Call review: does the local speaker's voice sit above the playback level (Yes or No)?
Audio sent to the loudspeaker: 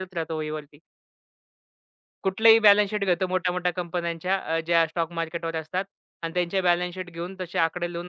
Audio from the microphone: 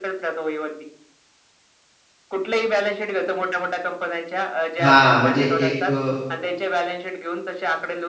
Yes